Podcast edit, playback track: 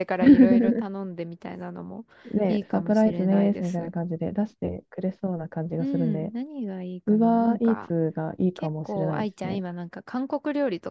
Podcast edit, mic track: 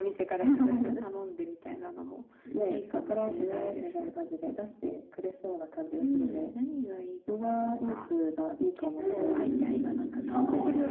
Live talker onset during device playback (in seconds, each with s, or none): 9.0 s